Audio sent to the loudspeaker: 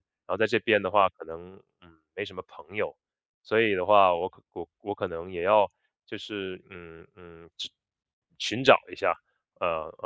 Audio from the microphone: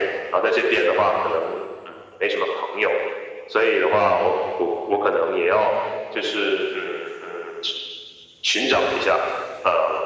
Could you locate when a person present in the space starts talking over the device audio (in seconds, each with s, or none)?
none